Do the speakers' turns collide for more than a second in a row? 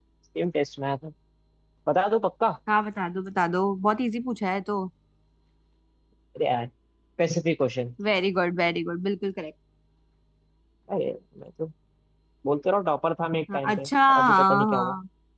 Yes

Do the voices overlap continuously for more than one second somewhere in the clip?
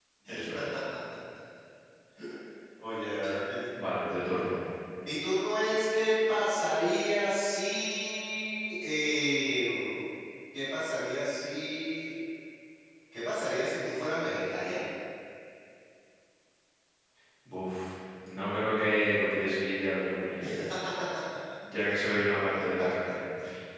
No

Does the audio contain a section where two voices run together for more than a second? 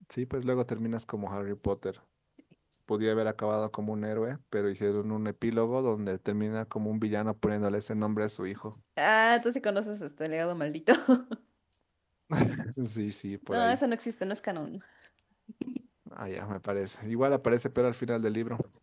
No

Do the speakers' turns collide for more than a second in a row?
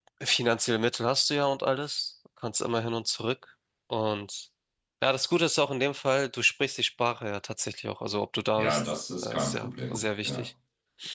Yes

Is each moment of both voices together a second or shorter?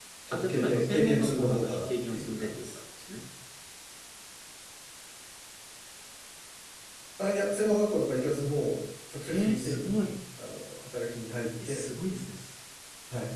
No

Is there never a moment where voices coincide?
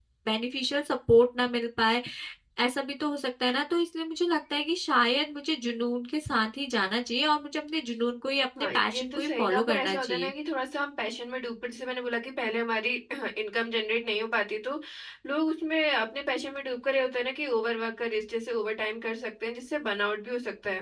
No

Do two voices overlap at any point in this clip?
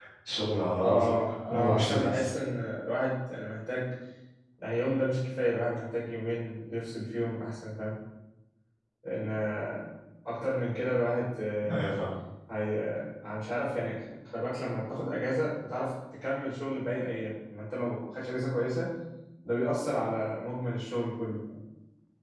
Yes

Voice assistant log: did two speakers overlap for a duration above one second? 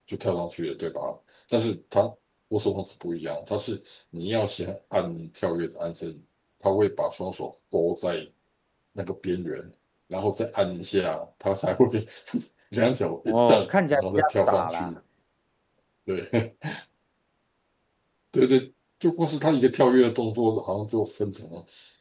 Yes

